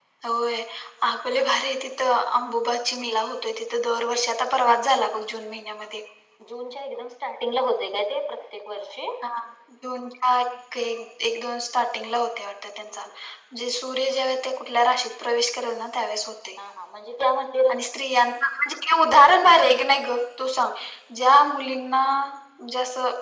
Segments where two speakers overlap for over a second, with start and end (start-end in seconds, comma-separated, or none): none